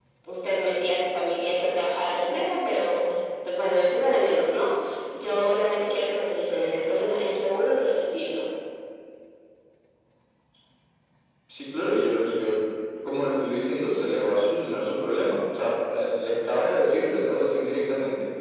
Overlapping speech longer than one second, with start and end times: none

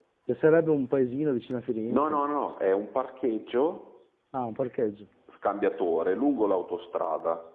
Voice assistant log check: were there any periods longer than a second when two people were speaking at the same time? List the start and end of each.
none

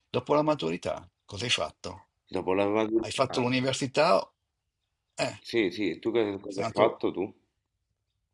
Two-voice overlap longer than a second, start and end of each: none

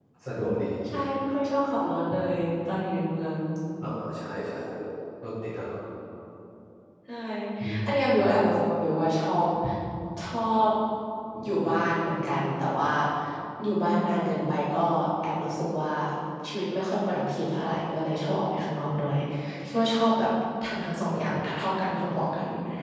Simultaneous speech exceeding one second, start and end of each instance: none

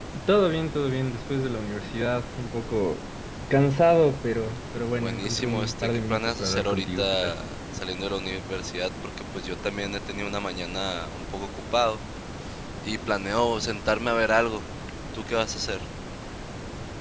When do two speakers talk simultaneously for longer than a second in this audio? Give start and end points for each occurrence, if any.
5.0-7.3

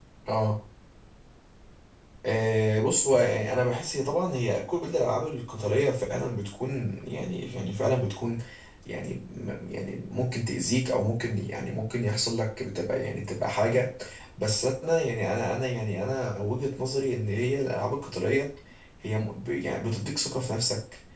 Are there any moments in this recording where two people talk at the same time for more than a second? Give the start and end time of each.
none

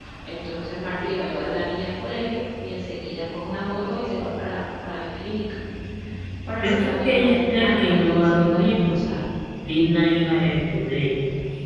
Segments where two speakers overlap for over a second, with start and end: 6.6-9.0

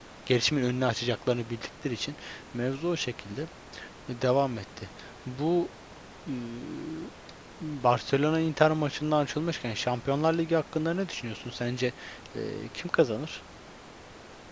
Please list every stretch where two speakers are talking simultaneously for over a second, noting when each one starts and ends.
none

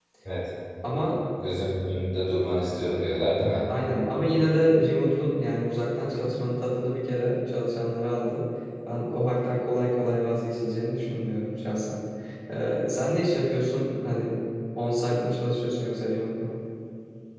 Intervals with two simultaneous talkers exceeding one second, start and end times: none

